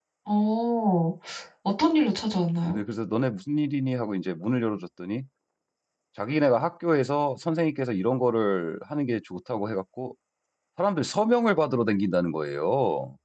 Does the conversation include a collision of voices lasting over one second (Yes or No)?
No